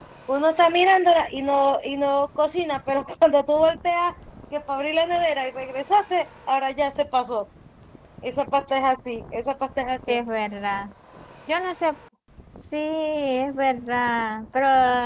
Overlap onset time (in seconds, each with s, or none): none